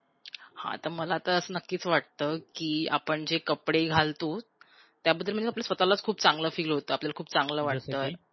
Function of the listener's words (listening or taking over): listening